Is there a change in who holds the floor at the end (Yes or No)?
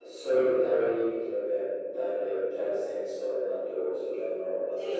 Yes